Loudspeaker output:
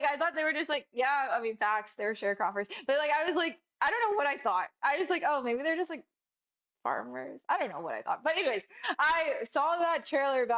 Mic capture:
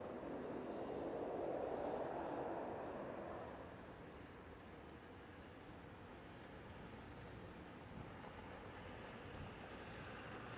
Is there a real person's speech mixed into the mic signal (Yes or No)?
No